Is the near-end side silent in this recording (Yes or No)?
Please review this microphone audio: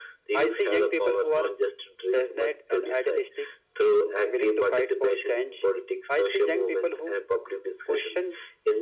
Yes